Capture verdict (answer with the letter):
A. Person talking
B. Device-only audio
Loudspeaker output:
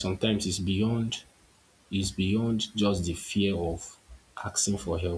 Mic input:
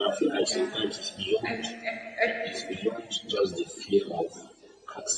A